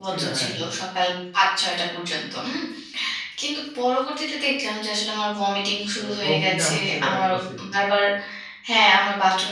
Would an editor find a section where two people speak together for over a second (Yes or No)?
Yes